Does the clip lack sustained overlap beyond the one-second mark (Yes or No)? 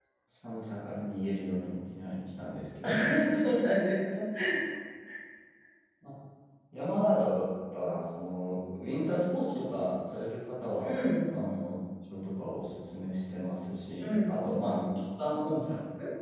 Yes